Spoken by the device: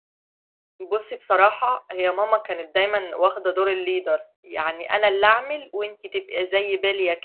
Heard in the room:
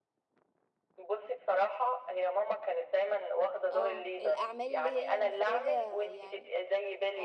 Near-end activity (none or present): present